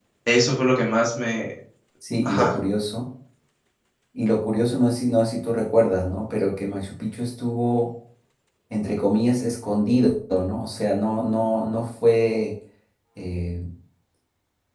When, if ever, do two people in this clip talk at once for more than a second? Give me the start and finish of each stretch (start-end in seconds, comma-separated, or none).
none